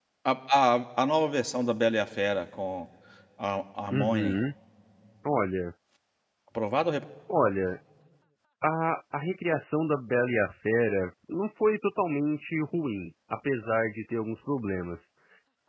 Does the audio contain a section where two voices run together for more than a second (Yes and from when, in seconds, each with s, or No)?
No